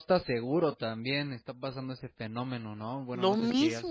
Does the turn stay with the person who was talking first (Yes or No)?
No